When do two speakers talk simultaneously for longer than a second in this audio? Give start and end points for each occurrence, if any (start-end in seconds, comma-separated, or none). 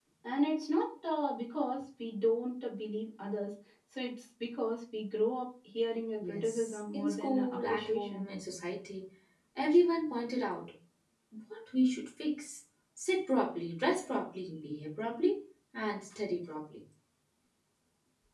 6.2-8.3